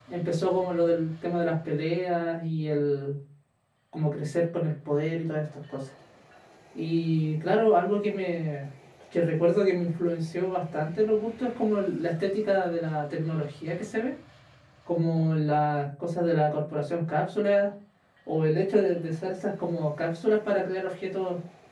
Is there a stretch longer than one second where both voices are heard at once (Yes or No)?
No